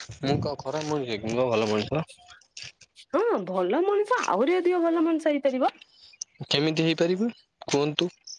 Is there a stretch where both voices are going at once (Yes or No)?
No